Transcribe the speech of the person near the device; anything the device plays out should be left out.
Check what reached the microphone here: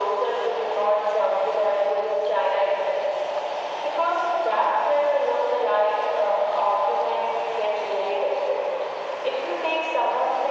none

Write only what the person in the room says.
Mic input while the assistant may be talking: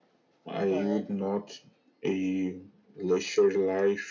But

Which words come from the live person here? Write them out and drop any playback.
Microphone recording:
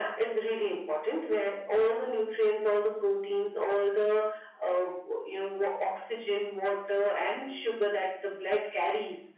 none

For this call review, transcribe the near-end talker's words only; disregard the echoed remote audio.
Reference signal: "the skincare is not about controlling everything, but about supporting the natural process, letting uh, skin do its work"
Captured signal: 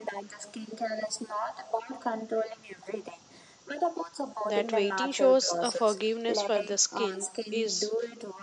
That waiting shows a forgiveness for the skin is,

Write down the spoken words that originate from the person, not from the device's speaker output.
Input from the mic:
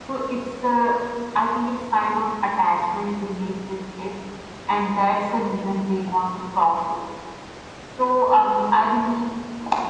none

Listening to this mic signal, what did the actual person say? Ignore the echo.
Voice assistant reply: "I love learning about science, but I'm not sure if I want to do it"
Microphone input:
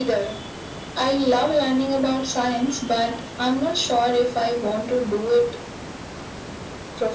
none

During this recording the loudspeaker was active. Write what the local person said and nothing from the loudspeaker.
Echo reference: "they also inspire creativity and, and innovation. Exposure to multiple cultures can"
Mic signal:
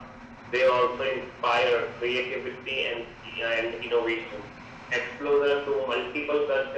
none

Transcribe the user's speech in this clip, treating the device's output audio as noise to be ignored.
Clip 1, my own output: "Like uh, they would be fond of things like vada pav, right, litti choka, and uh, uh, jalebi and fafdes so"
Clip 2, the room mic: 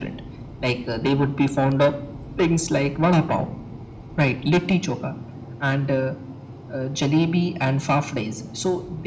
none

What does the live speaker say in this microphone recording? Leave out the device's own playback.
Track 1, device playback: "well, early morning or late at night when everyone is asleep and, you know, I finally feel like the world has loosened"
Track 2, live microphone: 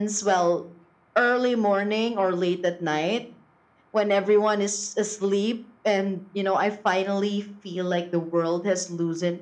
none

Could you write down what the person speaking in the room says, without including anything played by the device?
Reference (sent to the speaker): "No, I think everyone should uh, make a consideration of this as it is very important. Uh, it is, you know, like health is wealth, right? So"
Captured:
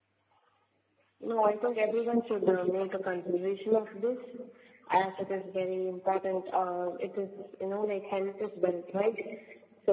none

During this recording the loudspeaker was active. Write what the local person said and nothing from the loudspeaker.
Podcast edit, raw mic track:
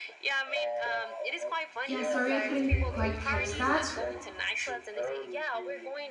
Yeah, sorry I couldn't quite catch that.

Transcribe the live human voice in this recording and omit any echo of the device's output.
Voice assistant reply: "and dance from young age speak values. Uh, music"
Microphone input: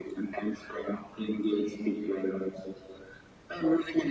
none

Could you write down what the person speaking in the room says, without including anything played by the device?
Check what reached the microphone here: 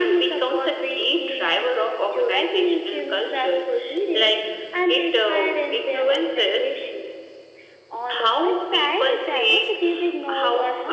none

